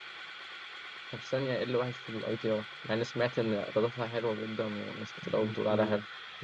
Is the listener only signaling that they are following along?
No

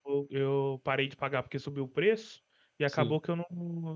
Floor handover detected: No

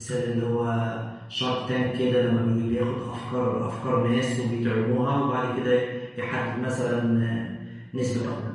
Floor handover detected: Yes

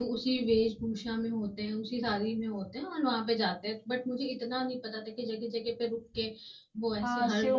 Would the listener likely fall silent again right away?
No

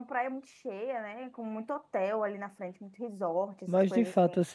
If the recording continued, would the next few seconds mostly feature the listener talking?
Yes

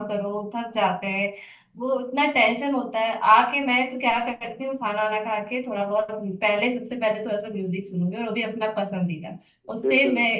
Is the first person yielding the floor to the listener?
No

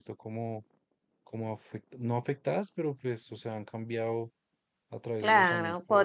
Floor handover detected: Yes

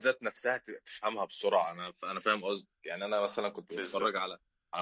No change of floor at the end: Yes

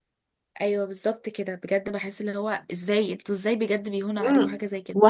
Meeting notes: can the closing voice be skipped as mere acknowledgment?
No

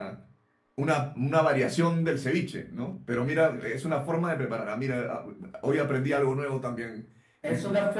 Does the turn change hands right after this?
Yes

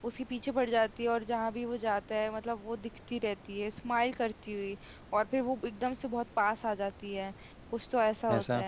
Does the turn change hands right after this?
No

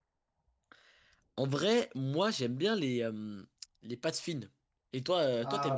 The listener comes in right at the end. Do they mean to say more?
Yes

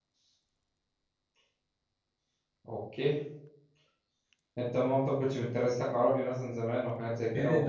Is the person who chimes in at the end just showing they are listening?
No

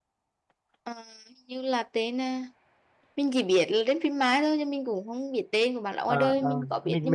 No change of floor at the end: No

